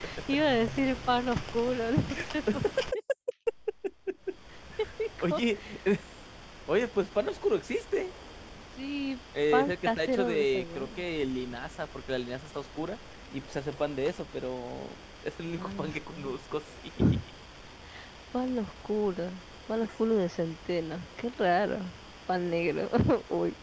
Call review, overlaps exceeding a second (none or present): present